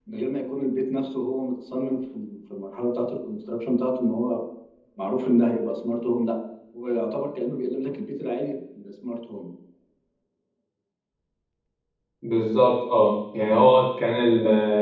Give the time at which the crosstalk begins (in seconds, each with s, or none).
none